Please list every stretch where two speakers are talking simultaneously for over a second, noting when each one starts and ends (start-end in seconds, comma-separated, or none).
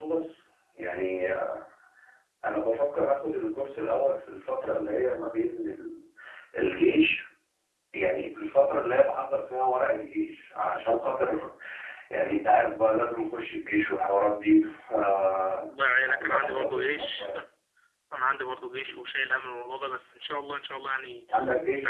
16.1-17.3